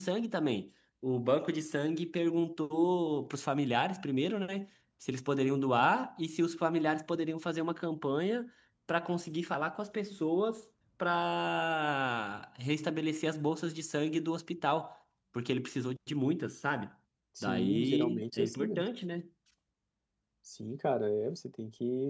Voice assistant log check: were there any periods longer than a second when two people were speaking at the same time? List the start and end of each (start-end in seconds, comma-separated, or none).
17.4-18.9